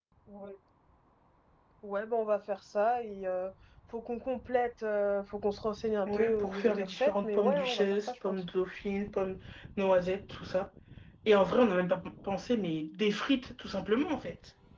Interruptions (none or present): present